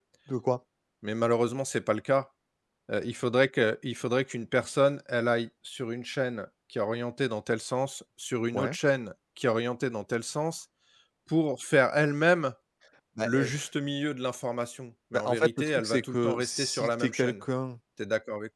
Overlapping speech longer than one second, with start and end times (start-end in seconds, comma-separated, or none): 15.1-17.4